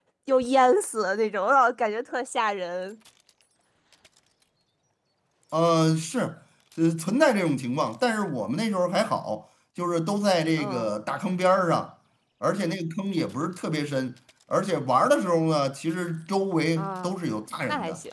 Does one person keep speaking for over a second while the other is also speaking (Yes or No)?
No